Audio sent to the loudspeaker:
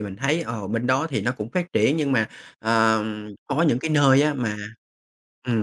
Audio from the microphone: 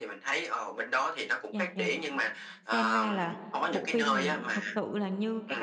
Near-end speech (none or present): present